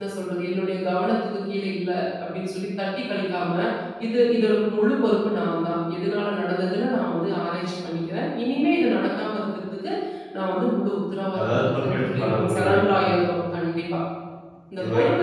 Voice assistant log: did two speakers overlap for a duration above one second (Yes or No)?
Yes